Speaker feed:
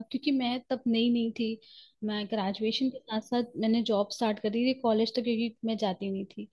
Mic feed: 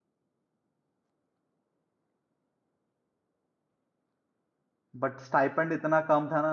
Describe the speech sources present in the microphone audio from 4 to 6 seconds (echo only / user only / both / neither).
user only